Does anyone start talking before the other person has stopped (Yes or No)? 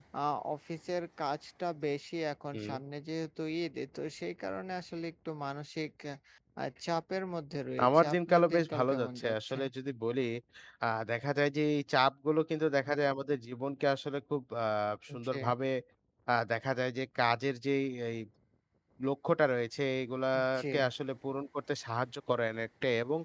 Yes